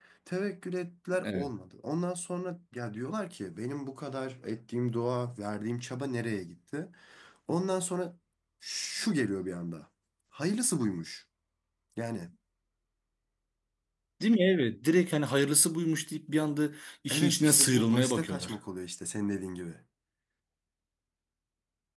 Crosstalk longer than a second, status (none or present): present